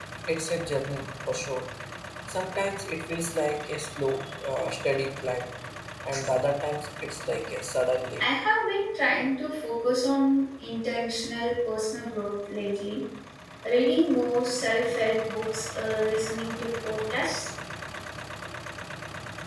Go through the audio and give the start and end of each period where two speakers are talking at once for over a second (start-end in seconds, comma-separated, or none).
none